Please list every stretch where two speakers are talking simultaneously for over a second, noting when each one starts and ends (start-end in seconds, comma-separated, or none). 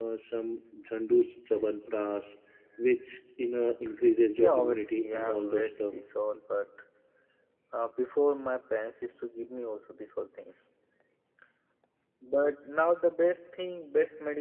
4.4-6.0